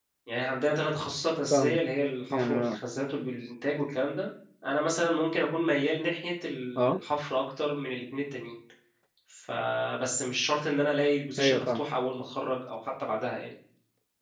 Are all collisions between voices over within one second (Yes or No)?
Yes